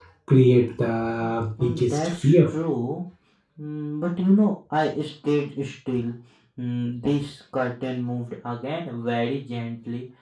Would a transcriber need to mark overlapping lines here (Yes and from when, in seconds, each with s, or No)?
Yes, from 1.1 s